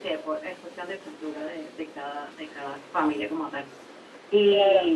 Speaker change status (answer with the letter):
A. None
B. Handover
A